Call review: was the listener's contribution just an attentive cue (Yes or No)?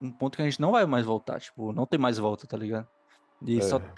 Yes